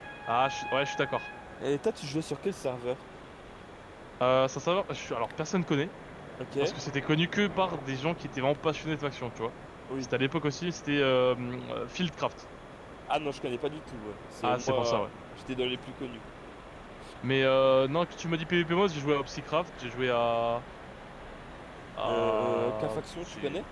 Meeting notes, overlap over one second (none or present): present